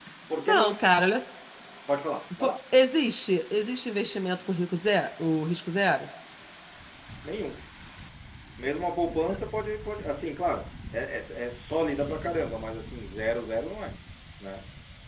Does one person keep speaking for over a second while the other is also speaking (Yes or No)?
No